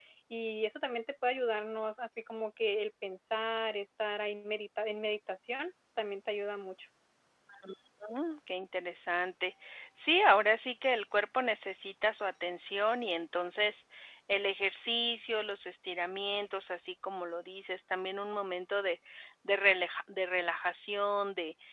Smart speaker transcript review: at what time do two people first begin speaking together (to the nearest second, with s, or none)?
none